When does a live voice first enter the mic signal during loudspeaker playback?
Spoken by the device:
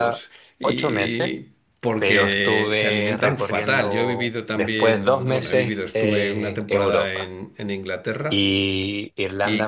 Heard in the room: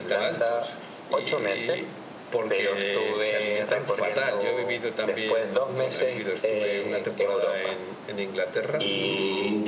8.7 s

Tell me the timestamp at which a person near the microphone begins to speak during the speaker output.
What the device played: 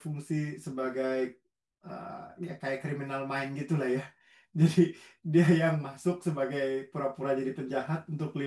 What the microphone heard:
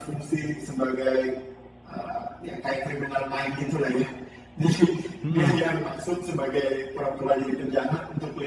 5.2 s

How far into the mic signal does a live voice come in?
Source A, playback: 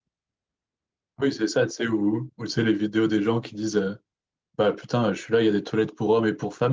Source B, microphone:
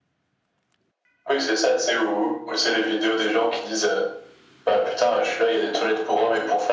none

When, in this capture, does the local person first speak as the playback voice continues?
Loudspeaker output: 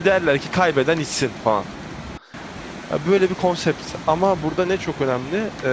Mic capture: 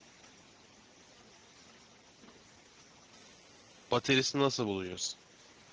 3.9 s

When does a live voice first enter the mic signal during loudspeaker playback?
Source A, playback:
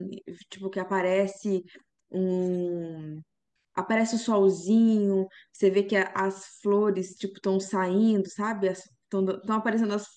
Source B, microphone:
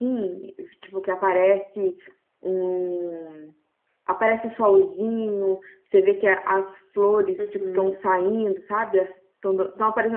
7.4 s

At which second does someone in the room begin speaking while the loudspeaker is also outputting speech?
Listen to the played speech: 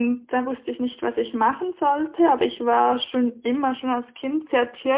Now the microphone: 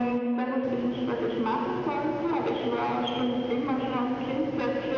none

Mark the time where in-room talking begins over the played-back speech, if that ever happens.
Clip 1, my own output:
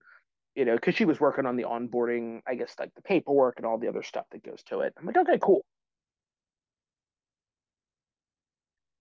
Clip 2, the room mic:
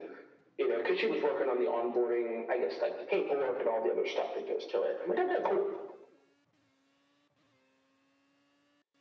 none

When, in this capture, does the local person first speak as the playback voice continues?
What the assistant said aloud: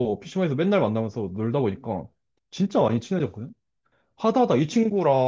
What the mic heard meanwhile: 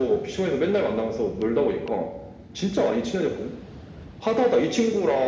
none

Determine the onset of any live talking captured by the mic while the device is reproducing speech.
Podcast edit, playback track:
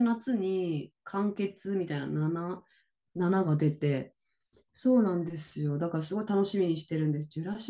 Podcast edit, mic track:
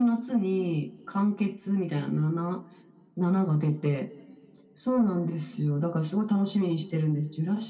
none

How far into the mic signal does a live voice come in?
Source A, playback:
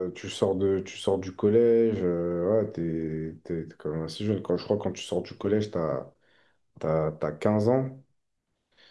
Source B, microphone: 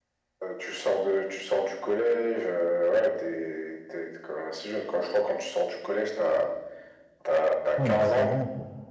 7.8 s

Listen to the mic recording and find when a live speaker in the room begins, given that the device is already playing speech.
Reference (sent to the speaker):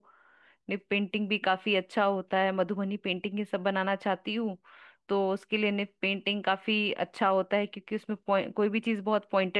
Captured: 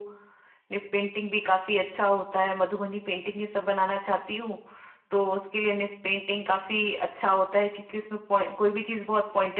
none

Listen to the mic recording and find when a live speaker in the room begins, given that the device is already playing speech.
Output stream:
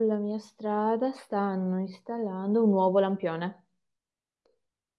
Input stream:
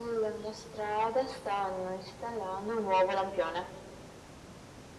none

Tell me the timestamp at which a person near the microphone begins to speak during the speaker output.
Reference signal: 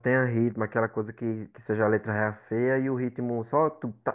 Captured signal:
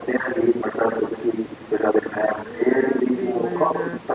2.4 s

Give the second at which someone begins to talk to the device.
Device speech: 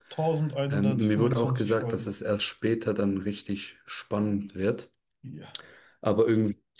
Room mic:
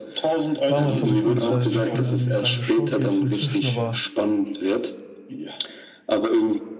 0.7 s

